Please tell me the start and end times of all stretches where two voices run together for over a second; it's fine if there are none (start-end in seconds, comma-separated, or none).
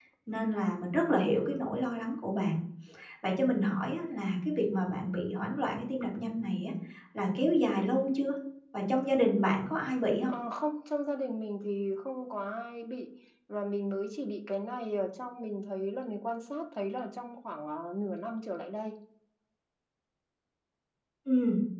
none